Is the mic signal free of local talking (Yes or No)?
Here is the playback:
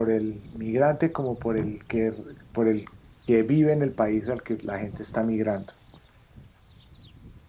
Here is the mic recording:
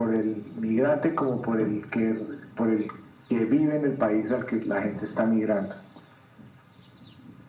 Yes